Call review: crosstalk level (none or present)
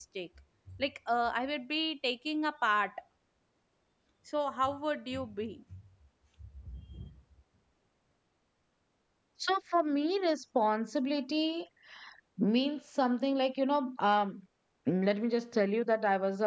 none